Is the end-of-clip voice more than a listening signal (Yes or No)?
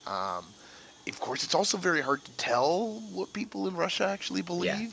No